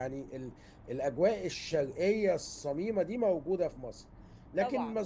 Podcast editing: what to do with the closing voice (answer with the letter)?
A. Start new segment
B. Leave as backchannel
B